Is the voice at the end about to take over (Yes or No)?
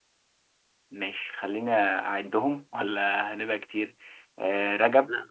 No